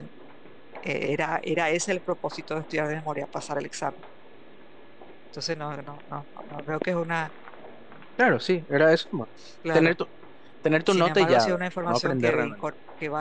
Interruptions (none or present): present